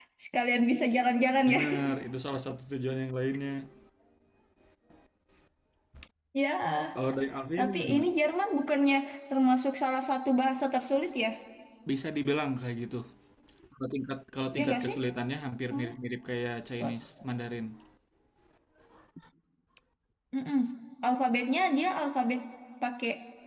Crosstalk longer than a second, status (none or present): none